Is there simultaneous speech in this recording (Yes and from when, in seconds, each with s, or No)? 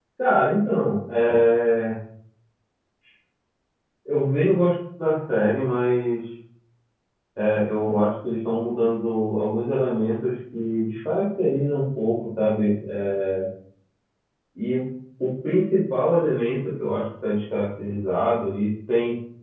No